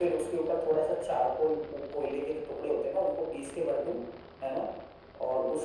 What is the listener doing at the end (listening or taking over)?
listening